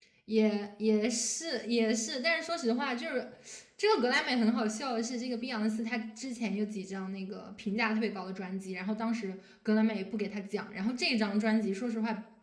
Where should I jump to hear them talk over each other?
none

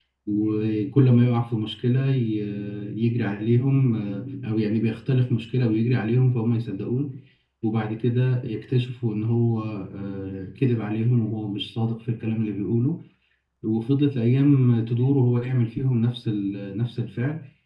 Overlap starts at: none

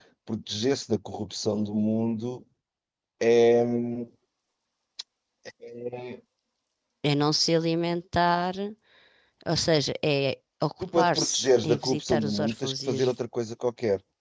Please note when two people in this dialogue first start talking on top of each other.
11 s

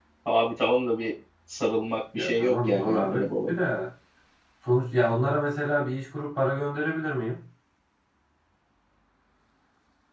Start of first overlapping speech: 2 s

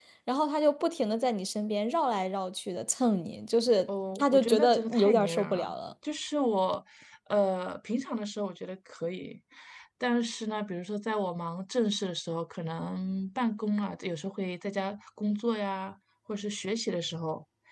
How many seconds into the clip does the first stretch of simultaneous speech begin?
4 s

